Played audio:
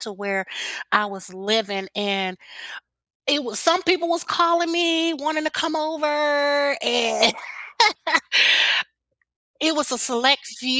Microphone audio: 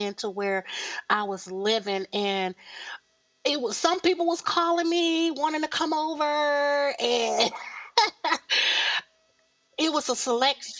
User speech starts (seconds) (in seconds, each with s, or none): none